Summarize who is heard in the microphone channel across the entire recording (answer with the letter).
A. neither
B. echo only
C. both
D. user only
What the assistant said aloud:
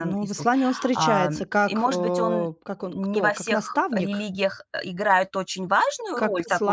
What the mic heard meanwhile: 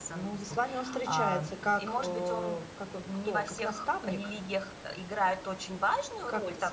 B